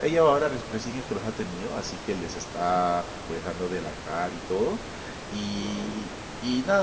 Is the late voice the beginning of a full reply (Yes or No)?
No